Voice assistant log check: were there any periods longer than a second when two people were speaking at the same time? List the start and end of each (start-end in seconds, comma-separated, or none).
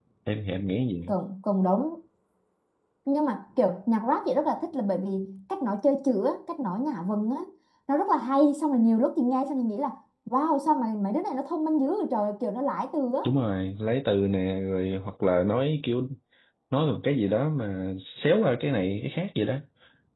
none